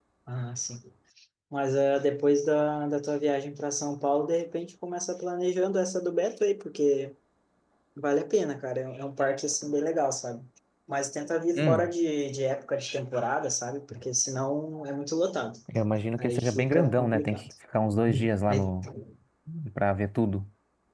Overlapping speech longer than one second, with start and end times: 16.2-17.5

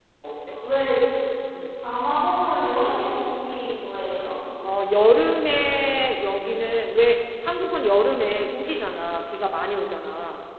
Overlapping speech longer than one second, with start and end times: none

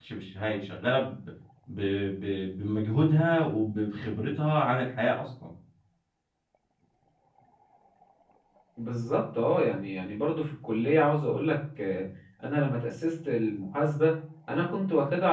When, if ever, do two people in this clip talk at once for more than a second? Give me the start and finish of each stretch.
none

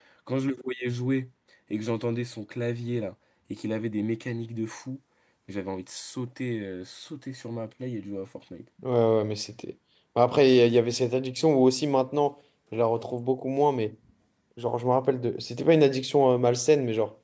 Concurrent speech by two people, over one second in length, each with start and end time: none

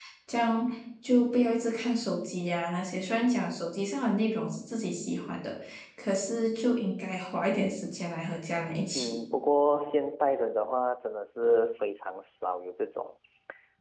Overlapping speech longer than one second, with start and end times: none

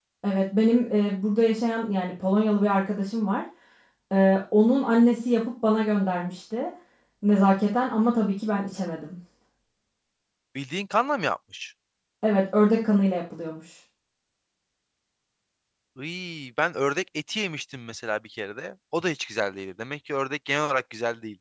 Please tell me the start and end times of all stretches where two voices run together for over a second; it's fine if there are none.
none

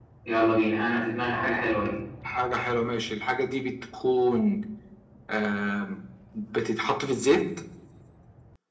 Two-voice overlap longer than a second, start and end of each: none

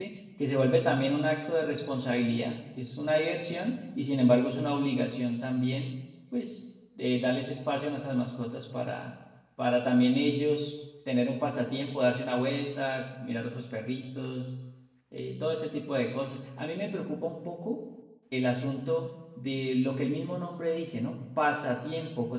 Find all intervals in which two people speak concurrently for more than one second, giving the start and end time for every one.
none

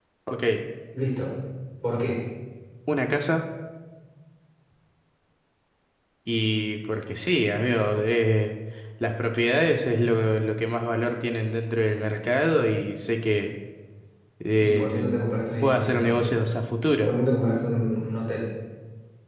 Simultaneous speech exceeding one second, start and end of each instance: 14.6-16.3

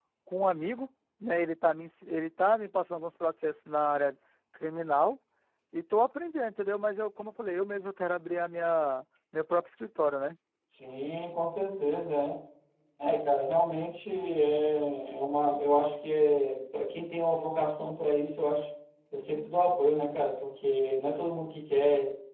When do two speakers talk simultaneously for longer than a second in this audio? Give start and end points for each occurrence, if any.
none

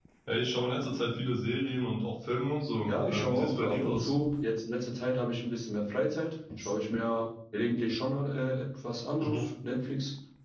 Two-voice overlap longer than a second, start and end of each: 2.9-4.1

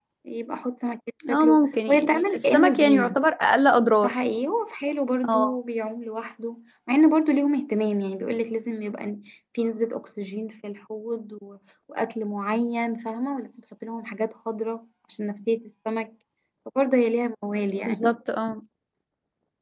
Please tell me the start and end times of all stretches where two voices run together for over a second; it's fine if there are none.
1.3-3.1

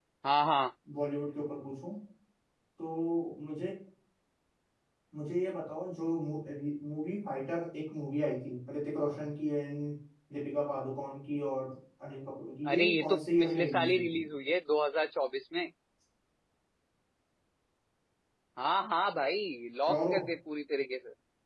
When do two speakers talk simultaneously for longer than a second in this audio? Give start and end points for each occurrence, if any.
12.7-14.2

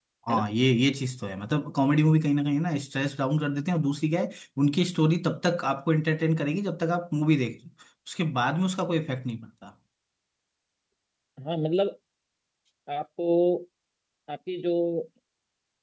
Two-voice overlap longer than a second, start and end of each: none

